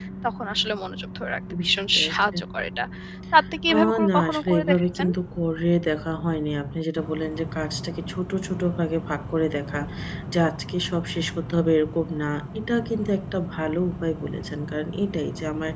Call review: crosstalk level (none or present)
present